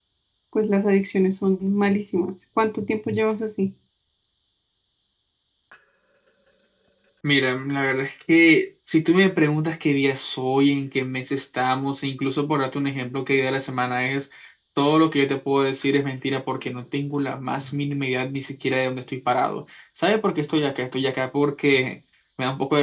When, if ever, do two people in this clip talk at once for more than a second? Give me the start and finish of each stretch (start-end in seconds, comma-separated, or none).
none